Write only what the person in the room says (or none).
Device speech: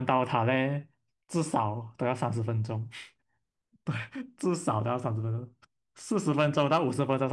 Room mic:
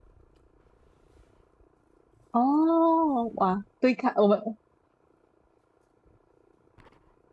哦，哇，对抗我们